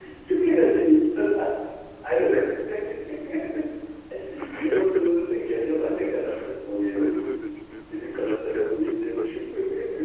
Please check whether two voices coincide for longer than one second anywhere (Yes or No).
Yes